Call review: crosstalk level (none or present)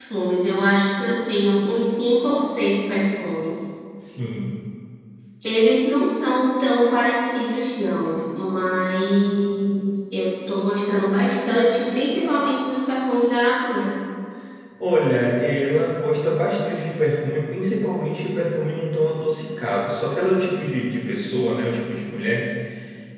none